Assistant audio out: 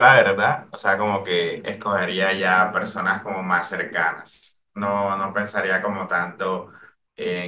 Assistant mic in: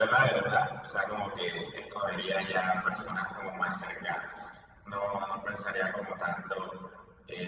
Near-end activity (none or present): none